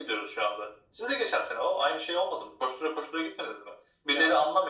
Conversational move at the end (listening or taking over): listening